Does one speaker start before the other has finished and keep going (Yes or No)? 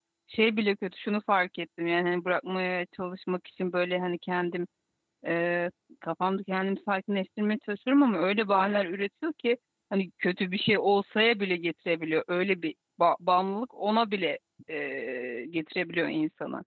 No